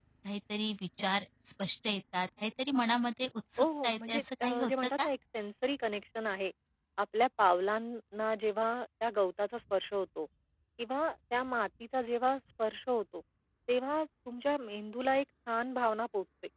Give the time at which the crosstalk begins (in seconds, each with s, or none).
3.6 s